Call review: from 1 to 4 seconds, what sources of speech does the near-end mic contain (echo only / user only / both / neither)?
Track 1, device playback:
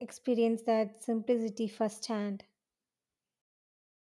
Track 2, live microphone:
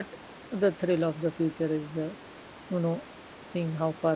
user only